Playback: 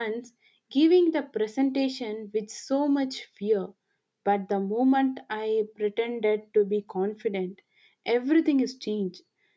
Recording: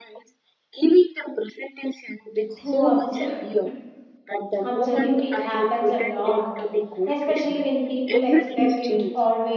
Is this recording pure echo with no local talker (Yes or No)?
No